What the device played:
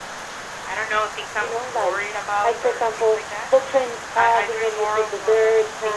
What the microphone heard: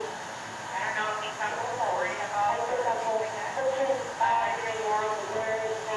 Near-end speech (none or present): none